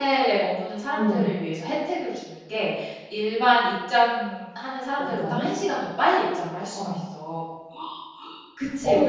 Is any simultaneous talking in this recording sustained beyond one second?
No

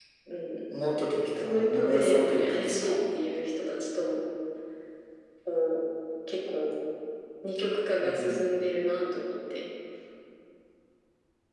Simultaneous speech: Yes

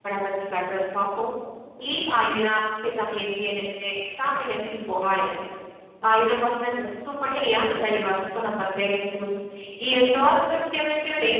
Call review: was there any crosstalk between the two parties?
No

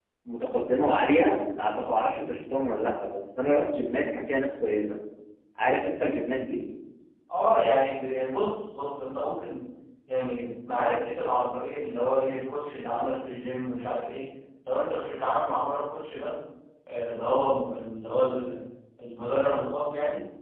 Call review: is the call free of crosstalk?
Yes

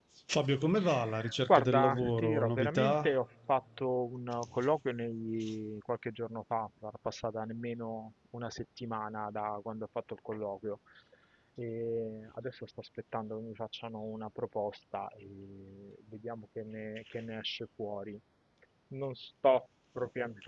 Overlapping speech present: Yes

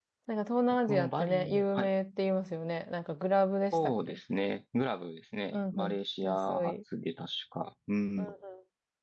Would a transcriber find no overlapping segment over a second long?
No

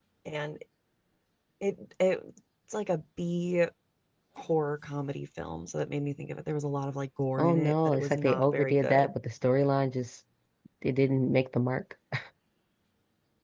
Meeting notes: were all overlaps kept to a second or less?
No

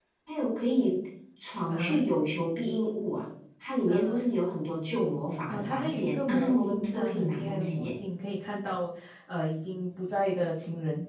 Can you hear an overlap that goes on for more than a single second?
Yes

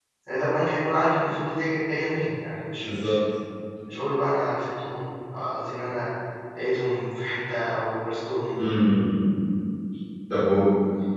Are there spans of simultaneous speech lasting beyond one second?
No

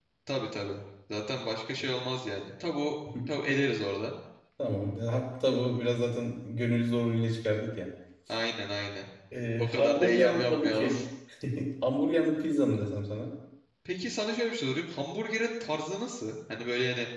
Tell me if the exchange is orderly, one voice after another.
No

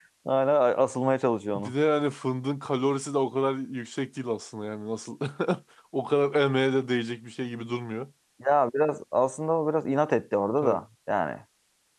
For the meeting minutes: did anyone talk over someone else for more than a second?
No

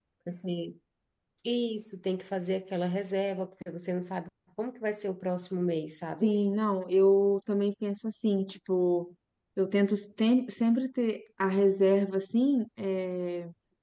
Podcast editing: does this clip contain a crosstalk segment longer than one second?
No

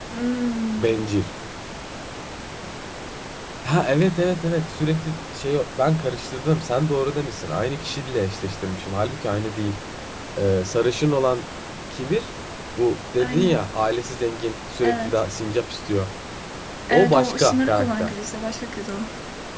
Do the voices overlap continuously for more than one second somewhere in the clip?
Yes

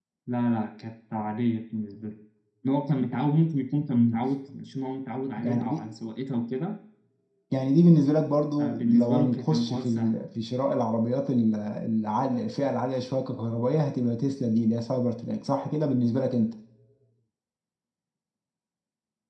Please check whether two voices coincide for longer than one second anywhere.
Yes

